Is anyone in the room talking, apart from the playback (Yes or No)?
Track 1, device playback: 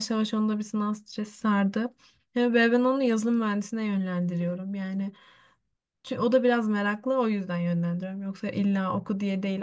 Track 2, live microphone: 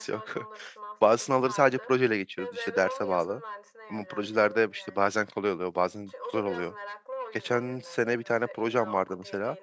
Yes